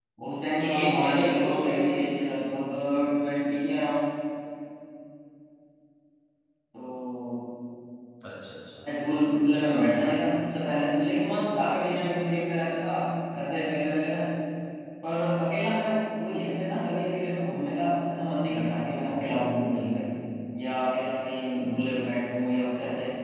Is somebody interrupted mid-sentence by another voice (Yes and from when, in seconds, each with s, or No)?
Yes, from 0.6 s